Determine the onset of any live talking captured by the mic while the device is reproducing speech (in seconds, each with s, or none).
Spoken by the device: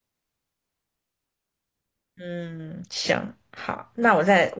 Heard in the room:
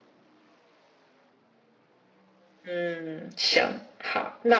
none